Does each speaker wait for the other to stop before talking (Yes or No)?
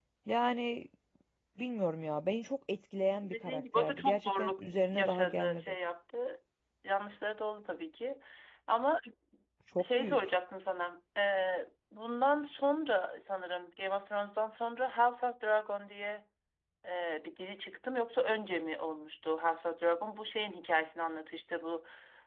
No